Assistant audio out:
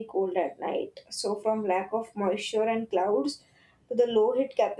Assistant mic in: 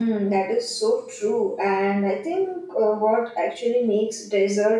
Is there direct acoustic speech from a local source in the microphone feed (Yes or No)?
Yes